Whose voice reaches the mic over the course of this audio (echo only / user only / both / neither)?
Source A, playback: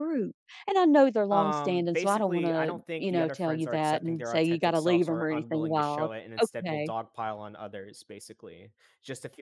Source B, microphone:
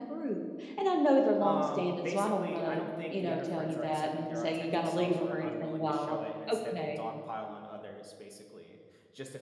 echo only